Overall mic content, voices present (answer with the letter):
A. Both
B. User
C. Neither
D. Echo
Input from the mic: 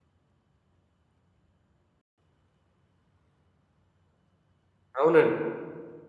B